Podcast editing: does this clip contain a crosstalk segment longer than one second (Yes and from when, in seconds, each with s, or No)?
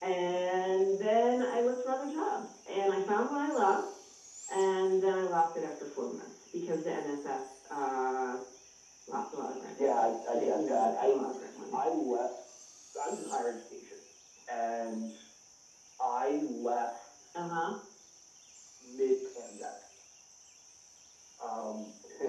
Yes, from 9.8 s